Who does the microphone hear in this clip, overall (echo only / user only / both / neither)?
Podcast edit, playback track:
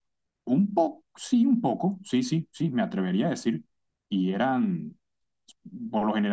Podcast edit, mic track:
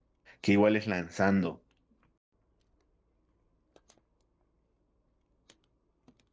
user only